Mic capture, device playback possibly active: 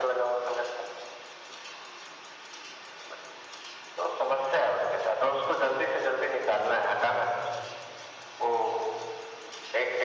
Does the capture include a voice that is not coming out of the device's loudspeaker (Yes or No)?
No